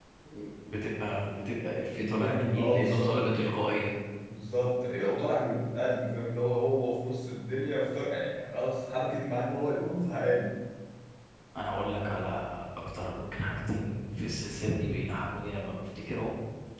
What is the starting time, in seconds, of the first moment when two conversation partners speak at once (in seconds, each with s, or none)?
2.0 s